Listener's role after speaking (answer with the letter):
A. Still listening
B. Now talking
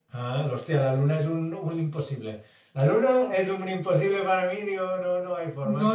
B